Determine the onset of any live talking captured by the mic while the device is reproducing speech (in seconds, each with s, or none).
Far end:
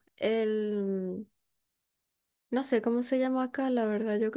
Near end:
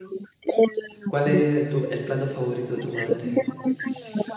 1.1 s